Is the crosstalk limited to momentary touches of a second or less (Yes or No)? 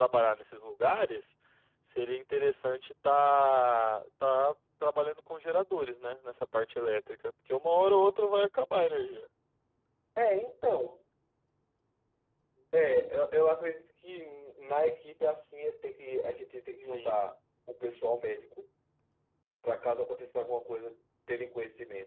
Yes